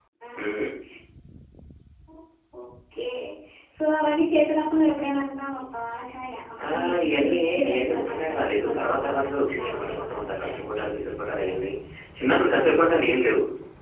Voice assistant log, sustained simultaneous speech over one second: present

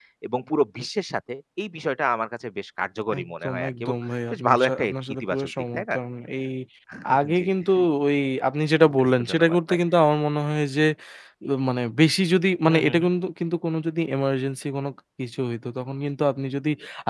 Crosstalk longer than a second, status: present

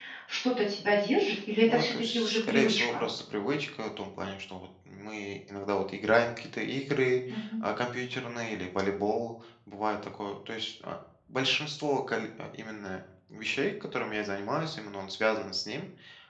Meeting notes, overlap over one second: present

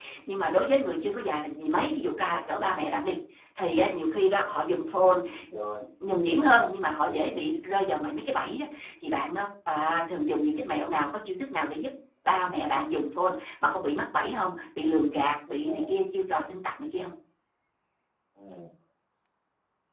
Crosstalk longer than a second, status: none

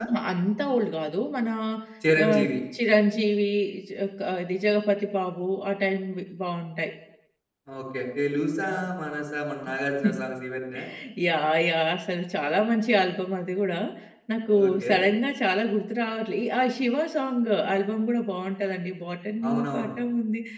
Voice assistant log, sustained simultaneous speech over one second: none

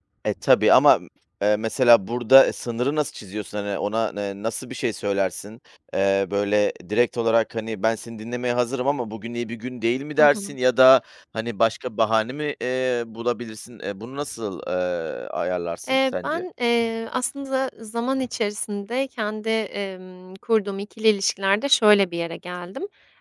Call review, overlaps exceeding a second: none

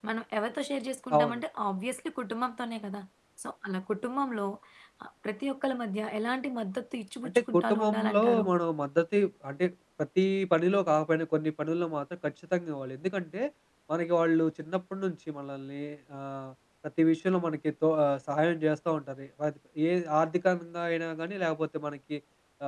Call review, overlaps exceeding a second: present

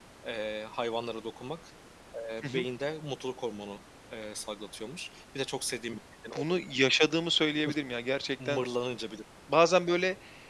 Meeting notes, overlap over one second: none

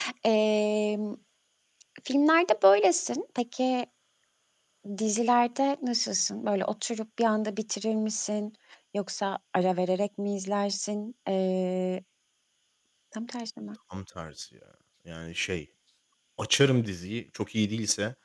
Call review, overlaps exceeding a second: none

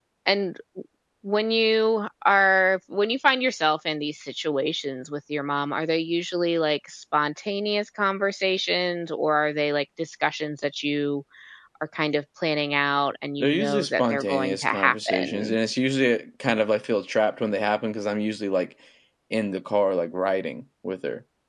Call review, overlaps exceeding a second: present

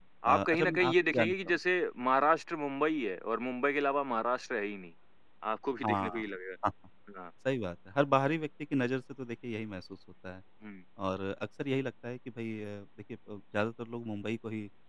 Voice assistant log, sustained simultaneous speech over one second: present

